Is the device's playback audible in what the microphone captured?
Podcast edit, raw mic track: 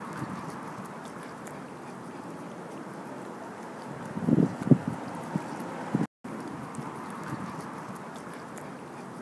No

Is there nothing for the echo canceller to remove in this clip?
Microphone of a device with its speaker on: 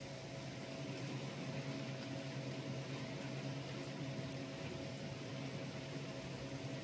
Yes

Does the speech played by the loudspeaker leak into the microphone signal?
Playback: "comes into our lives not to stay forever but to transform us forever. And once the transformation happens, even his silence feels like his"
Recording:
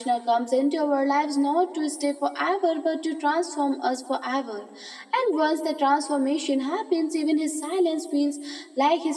Yes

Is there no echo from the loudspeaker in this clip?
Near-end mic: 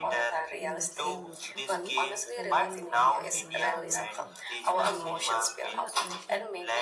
No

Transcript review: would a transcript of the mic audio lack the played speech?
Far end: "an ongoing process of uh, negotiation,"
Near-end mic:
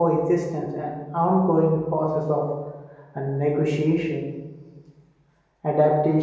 No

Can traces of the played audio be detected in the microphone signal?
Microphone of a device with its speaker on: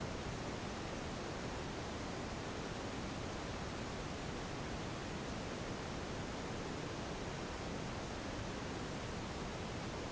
No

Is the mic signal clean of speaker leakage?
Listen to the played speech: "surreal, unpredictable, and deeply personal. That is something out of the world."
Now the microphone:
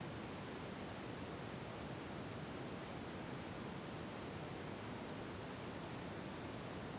Yes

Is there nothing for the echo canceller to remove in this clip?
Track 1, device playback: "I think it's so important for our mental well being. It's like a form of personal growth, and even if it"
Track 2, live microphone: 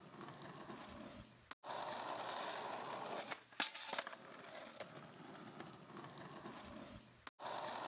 Yes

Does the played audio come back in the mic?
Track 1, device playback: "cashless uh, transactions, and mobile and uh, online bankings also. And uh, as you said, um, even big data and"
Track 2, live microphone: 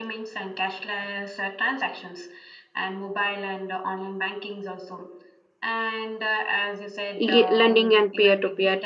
Yes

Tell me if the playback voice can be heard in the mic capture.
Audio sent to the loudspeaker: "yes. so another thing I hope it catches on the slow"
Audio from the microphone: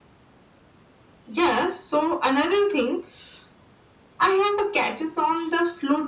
Yes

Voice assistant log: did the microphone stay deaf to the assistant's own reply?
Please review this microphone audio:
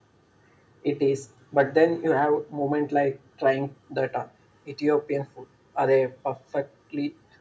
No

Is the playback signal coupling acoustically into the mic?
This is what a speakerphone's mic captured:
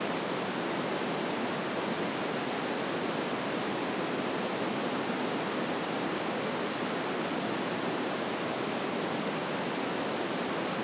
No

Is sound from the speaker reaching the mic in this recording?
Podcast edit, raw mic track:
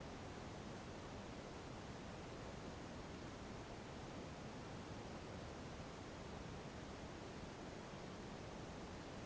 No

